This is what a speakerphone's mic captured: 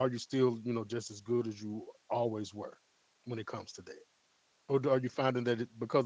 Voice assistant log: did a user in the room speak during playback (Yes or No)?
Yes